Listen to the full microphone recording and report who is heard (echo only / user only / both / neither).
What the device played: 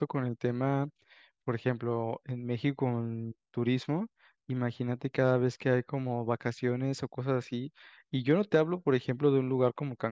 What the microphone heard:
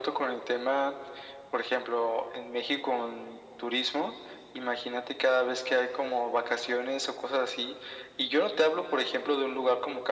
echo only